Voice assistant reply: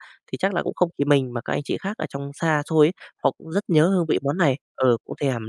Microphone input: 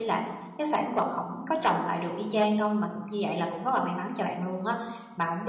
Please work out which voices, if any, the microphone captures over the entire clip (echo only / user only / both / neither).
user only